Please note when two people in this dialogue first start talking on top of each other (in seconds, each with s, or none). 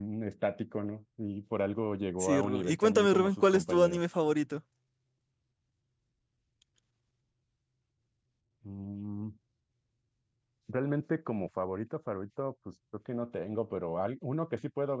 2.2 s